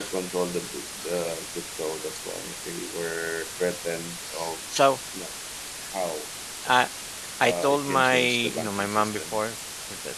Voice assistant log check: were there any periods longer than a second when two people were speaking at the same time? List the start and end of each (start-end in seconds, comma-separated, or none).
7.4-9.4